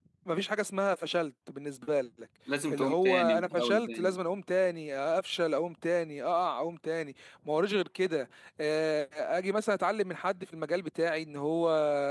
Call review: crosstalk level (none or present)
present